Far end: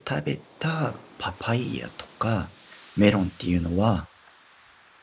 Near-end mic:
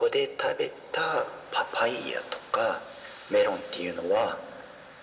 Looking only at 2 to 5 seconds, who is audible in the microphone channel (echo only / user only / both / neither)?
echo only